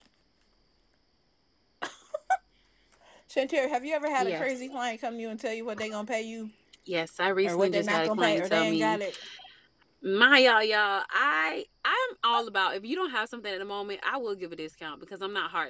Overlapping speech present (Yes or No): Yes